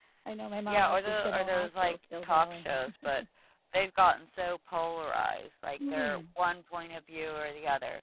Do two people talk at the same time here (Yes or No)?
Yes